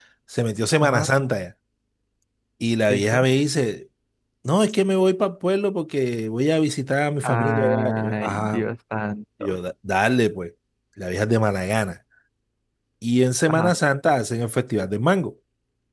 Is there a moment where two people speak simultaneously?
Yes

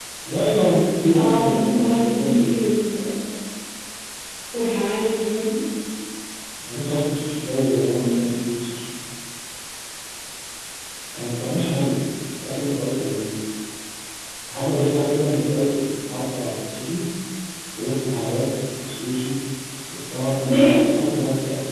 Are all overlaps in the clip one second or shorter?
No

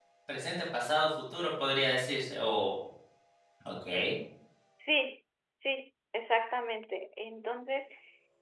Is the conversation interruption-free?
Yes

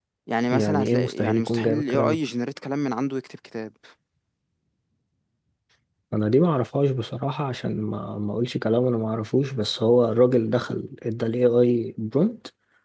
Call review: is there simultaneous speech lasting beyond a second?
Yes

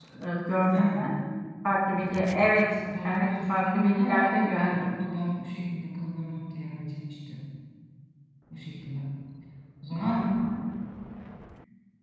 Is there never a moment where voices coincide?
No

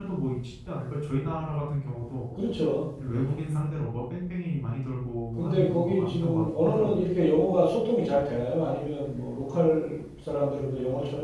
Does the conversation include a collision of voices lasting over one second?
Yes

